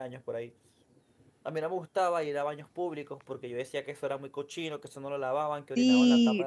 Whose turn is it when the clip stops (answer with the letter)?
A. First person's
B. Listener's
B